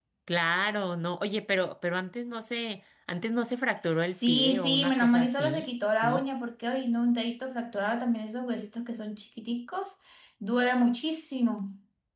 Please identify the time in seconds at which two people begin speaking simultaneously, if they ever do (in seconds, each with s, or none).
4.2 s